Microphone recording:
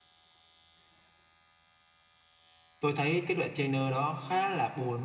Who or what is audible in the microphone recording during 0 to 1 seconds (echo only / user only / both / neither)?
neither